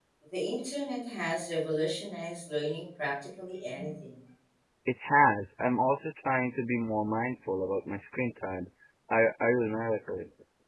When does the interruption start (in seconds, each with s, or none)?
none